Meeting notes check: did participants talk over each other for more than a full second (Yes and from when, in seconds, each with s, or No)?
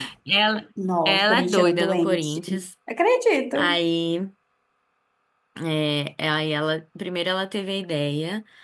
Yes, from 1.1 s